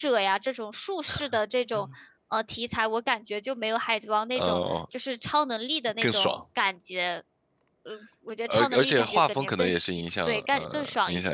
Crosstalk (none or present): present